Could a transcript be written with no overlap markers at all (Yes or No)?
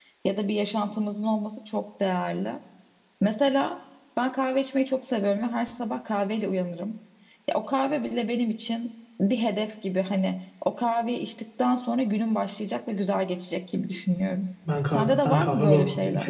No